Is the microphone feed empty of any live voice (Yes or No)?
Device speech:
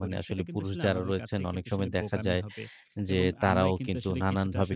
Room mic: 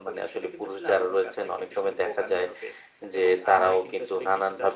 Yes